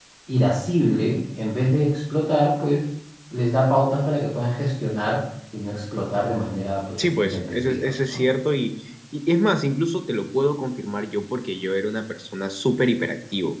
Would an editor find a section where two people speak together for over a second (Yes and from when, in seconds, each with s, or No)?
Yes, from 7.0 s